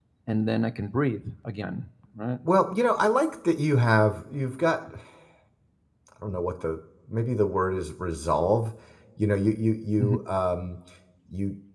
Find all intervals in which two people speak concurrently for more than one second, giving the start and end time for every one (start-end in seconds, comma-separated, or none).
none